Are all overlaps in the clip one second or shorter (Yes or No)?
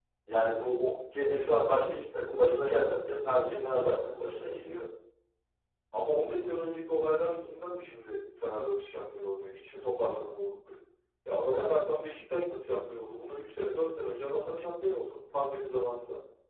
Yes